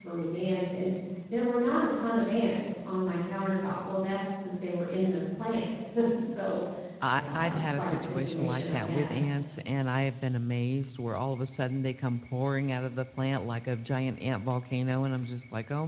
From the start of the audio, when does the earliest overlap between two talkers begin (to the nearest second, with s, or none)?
7 s